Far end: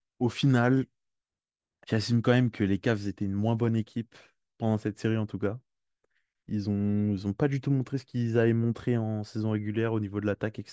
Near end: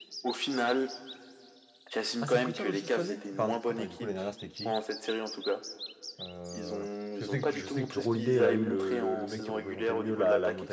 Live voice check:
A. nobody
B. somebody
B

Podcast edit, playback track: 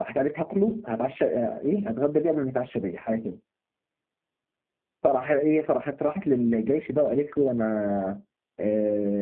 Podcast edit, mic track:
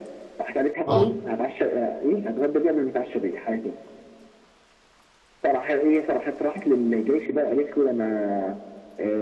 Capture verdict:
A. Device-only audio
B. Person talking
B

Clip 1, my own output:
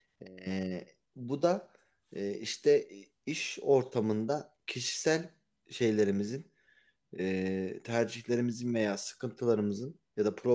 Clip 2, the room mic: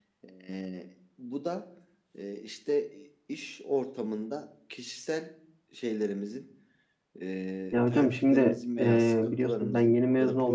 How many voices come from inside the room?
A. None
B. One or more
B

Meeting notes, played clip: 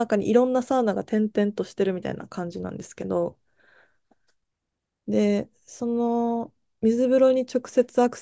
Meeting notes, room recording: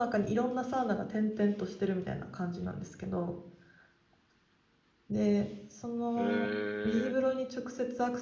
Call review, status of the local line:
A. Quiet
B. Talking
B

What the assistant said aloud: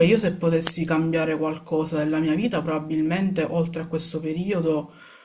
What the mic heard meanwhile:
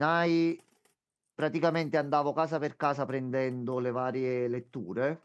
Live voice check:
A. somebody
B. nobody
A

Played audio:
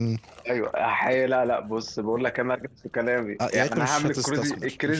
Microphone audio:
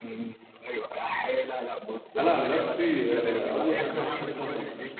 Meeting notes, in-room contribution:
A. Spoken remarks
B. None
A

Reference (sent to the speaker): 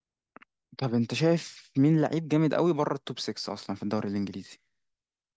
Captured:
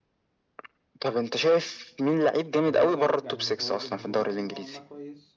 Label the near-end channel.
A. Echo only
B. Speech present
B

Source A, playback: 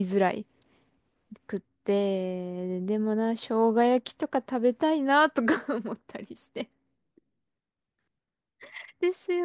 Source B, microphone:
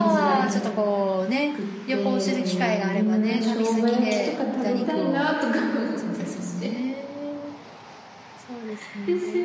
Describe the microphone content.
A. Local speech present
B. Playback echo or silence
A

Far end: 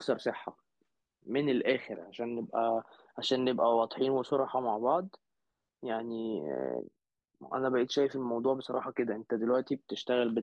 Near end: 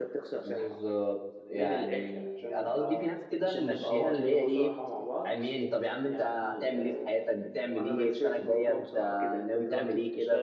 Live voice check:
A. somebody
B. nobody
A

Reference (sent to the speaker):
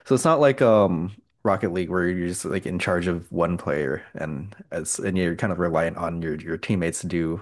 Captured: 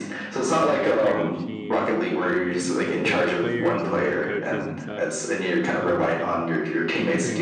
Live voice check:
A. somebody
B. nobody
A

